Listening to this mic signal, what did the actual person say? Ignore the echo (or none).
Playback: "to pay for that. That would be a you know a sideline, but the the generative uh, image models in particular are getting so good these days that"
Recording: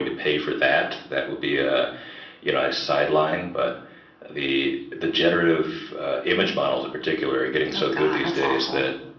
Oh God, that's awful.